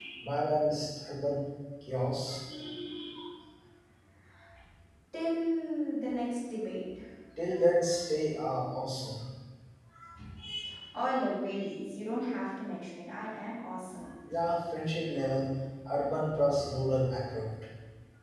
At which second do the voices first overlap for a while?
none

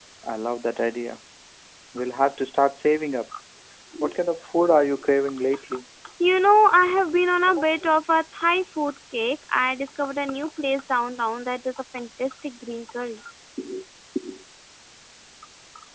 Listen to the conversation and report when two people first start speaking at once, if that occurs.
none

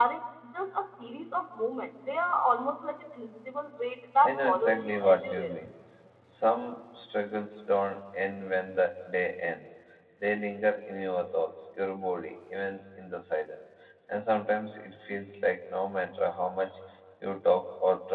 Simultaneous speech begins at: 4.2 s

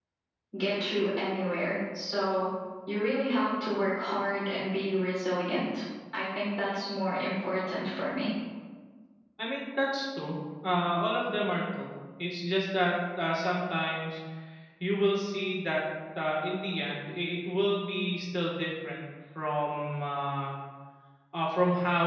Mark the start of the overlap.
none

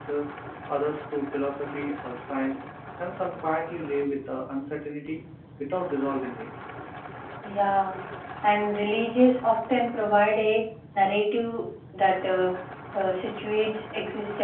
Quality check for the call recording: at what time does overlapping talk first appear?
none

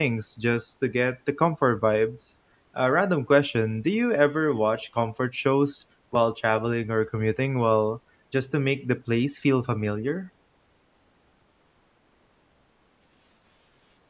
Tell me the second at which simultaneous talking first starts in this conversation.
none

